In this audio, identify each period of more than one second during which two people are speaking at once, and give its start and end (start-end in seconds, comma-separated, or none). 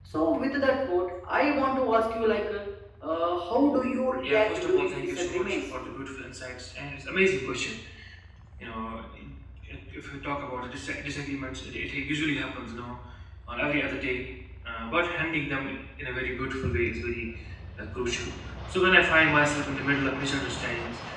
4.2-5.7